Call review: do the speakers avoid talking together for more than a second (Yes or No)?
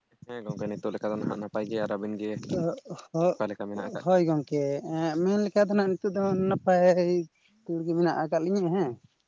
Yes